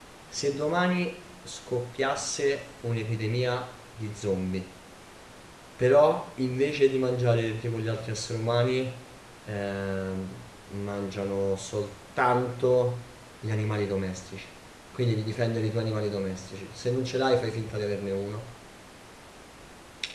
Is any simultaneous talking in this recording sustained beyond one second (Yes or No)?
No